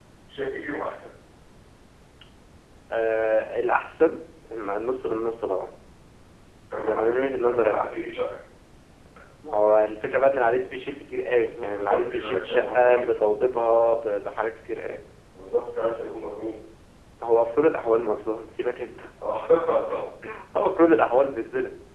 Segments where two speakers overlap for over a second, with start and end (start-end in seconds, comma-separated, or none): 6.8-8.0, 11.6-13.1